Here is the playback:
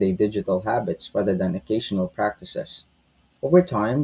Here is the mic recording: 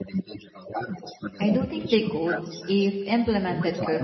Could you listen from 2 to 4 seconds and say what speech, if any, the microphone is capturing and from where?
both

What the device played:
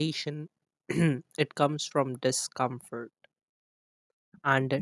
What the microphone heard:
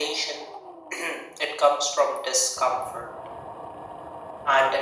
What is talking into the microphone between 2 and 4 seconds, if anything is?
echo only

